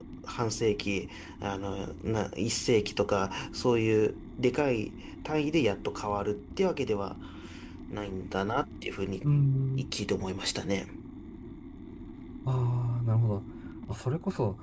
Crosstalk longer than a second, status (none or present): none